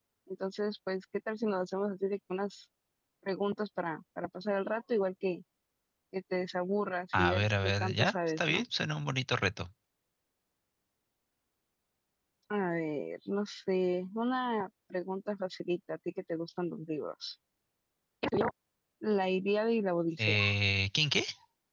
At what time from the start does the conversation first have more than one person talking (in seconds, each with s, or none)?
7.1 s